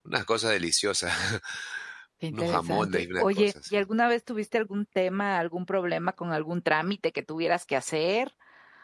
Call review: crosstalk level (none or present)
present